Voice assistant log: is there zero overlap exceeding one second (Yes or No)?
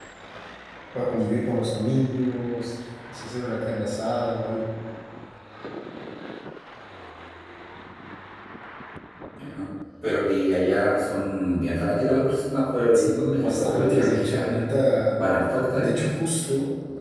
No